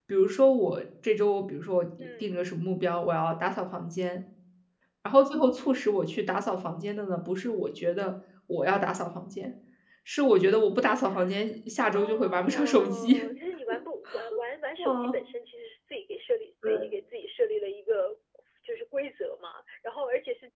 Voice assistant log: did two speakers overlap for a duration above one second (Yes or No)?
Yes